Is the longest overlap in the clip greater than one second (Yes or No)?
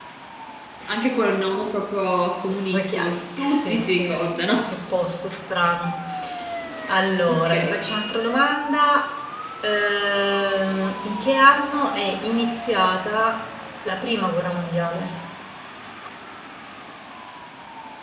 Yes